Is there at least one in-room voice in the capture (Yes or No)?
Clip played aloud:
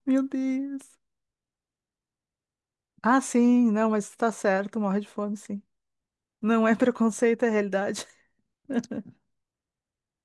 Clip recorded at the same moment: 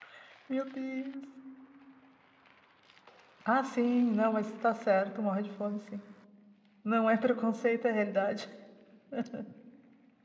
No